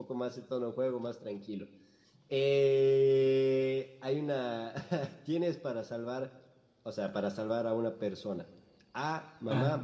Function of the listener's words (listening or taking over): listening